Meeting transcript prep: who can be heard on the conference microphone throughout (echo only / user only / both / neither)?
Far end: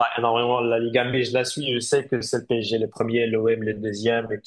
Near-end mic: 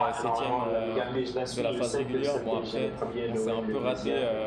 both